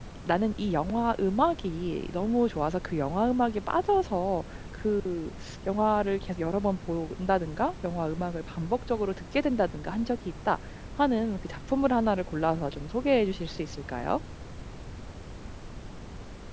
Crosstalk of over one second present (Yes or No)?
No